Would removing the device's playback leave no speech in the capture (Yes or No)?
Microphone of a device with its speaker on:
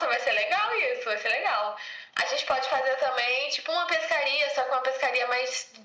Yes